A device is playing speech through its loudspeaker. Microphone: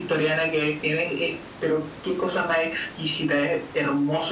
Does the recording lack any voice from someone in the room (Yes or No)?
Yes